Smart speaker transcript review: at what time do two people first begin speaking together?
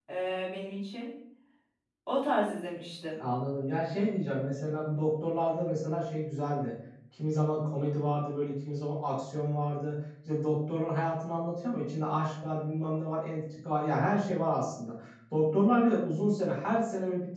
none

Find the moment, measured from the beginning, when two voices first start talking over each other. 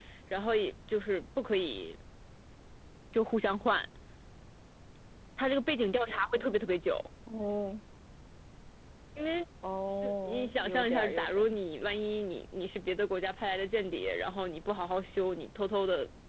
10 s

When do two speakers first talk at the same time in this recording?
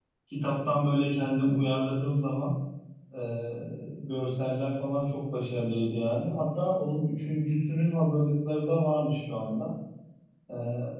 none

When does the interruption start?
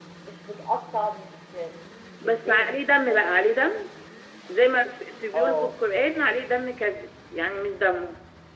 2 s

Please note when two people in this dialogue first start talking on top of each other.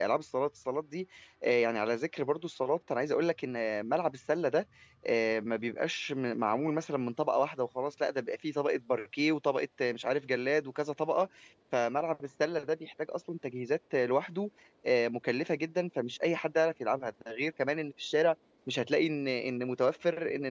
none

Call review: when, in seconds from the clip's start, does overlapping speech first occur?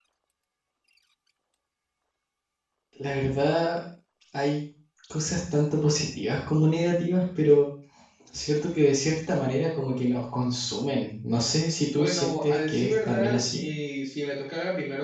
12 s

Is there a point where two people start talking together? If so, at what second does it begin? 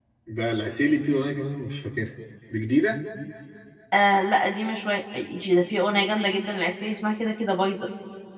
none

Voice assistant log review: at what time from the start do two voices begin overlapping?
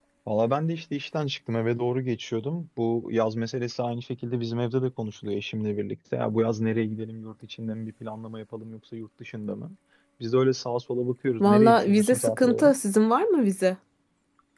11 s

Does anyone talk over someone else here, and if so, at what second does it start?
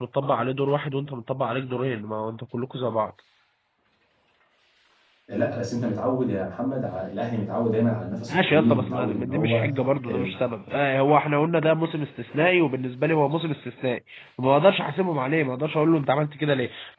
8 s

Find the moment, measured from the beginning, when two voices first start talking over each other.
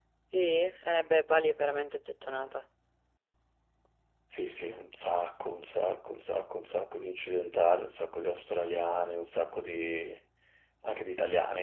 none

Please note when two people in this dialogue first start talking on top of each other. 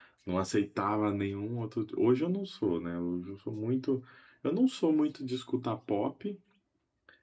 none

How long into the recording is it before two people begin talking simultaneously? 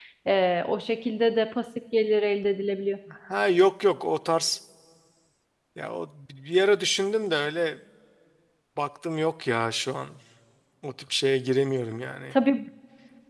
none

